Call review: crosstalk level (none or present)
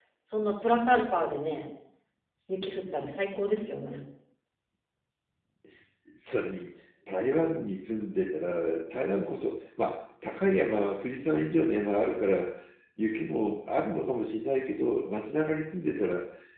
none